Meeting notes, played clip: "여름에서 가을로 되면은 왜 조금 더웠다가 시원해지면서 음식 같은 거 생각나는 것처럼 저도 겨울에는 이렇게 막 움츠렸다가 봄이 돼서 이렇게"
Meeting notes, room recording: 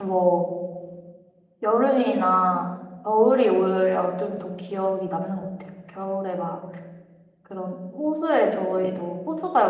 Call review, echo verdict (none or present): none